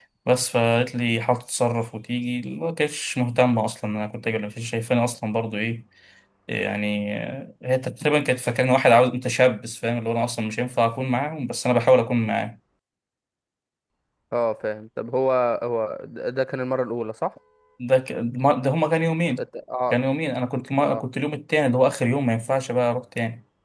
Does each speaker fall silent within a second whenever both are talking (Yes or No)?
Yes